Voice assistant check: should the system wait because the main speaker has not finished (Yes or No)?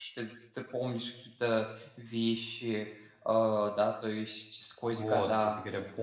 No